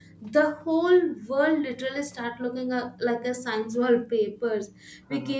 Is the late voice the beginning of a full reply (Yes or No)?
No